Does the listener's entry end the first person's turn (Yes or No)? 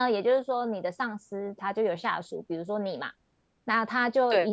No